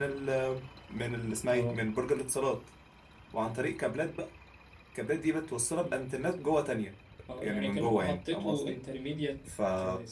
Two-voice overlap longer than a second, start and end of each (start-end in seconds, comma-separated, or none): 7.4-8.8